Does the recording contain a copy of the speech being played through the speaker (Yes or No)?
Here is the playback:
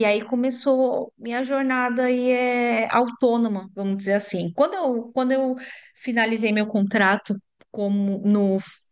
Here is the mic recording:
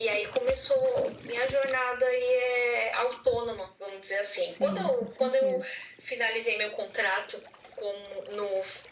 Yes